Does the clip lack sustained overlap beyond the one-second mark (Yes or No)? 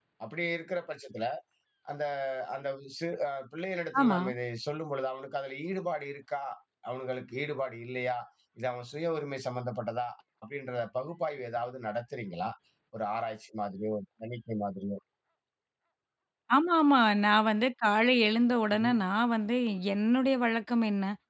Yes